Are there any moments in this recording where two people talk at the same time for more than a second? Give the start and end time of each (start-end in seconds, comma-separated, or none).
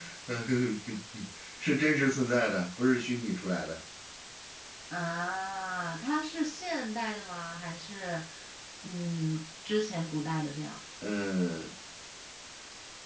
none